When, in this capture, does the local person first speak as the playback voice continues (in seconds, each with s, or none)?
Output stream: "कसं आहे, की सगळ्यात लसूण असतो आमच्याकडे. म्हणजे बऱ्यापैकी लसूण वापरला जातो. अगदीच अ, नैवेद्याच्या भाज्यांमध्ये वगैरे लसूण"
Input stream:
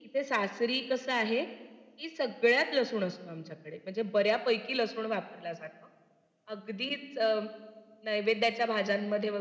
none